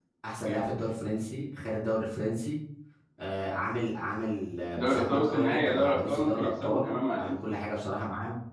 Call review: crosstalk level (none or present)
present